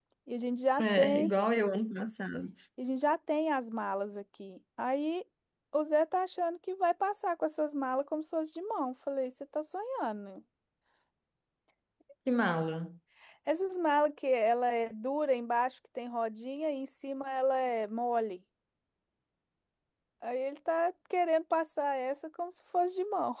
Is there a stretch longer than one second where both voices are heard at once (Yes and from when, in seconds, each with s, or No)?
No